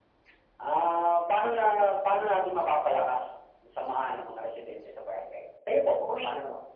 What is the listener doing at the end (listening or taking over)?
taking over